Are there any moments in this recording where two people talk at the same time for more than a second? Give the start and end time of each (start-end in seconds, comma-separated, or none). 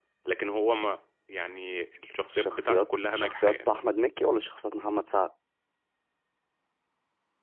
2.3-3.7